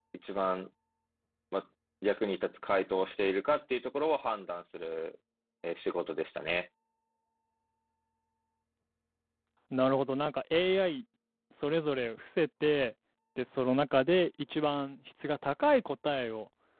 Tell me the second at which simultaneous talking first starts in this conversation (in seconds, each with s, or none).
none